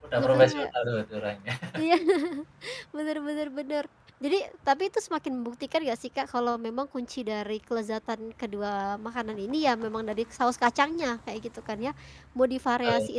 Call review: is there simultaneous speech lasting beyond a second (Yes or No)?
No